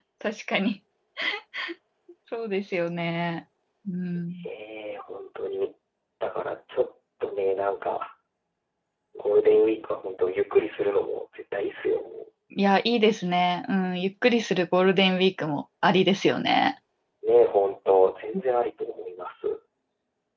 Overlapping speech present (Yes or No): No